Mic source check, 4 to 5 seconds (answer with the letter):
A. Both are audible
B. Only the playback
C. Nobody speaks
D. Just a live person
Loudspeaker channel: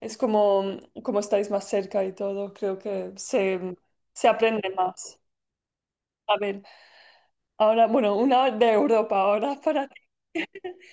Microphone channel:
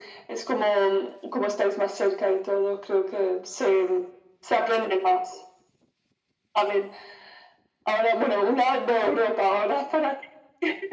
B